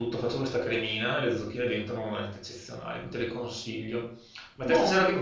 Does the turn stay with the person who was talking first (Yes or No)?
Yes